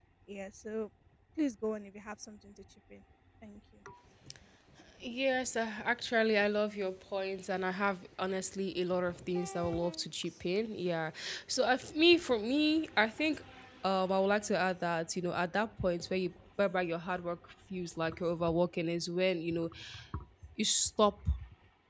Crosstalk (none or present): none